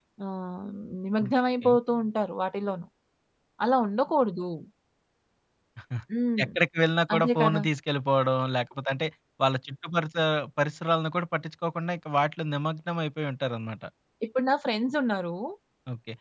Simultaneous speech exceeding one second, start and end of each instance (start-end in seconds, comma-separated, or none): none